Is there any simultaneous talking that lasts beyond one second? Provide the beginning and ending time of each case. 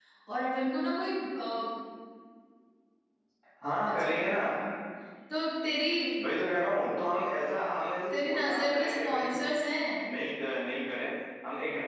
8.1-9.3

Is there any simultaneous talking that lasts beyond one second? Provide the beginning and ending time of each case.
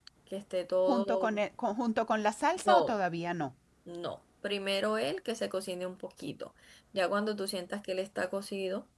none

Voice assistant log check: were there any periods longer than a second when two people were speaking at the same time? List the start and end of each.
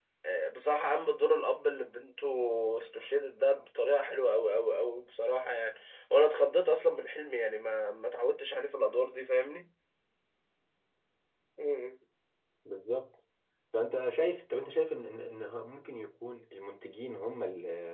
none

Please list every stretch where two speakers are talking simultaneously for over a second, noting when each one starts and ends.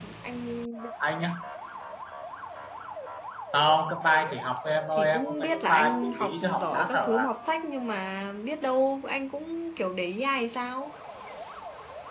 4.9-7.3

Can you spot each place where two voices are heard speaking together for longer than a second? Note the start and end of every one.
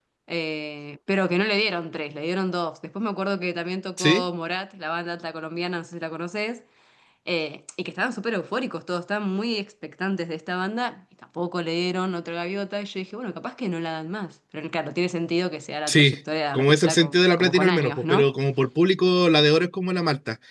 16.5-18.3

